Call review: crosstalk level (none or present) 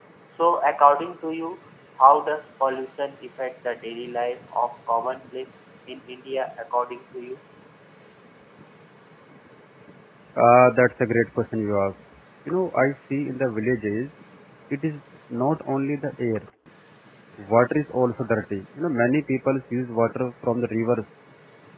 none